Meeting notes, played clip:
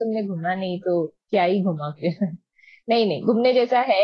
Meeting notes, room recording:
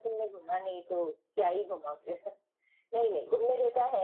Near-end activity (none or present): none